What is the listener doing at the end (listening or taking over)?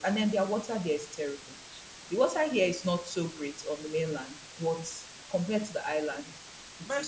taking over